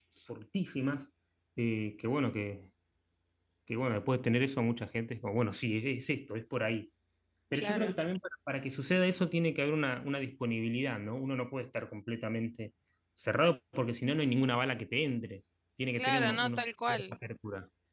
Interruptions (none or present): present